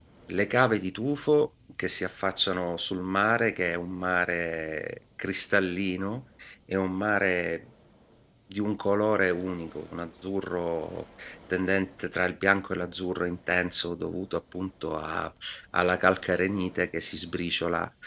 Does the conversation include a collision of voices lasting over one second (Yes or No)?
No